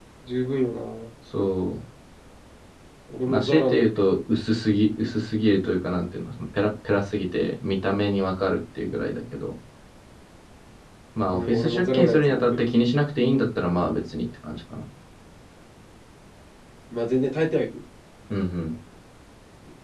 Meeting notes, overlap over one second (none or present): present